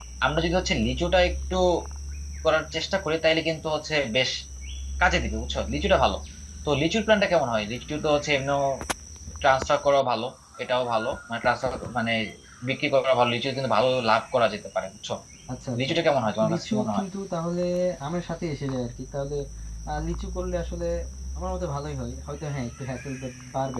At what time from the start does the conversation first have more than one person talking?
16 s

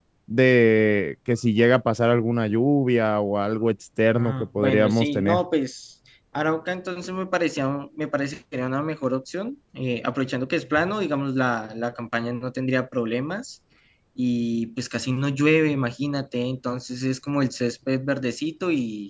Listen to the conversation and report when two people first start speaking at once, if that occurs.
4 s

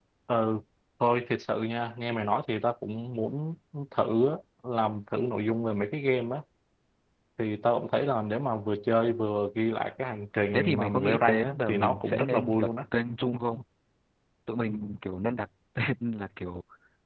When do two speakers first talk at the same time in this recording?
11 s

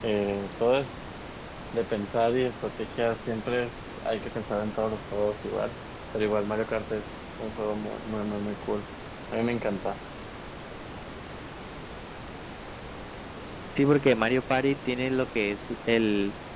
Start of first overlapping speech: none

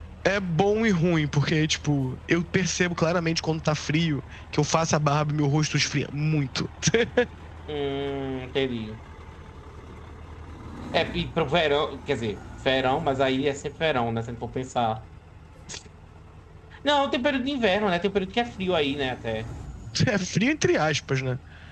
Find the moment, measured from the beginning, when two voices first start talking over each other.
none

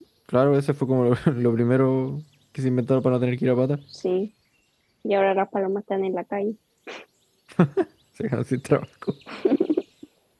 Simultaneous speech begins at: none

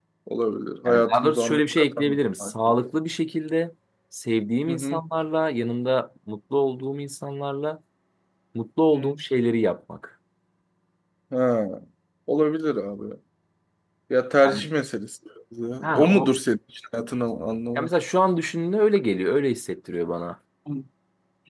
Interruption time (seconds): 1 s

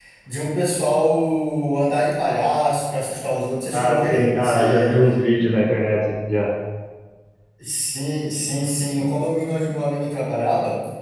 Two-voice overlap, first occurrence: 4 s

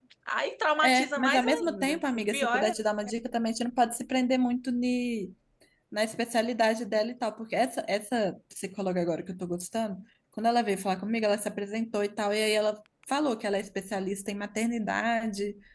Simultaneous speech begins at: 1 s

